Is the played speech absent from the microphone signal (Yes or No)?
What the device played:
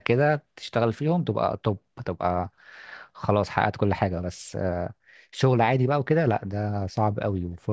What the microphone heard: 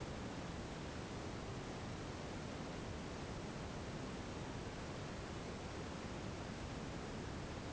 Yes